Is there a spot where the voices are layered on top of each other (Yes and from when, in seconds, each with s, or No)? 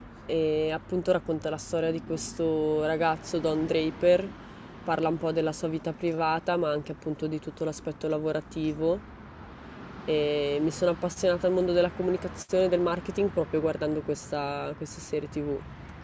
No